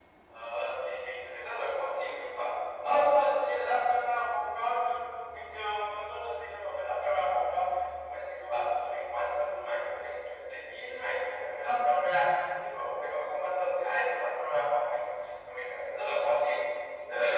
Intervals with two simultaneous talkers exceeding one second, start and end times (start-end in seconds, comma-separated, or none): none